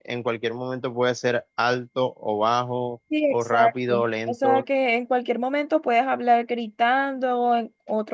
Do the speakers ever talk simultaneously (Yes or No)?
Yes